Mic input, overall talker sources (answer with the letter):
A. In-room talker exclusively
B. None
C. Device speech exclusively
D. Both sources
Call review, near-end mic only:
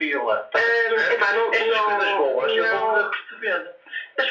C